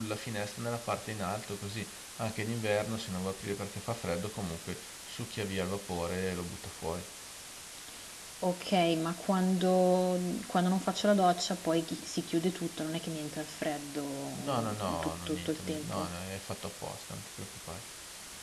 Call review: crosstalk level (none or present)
present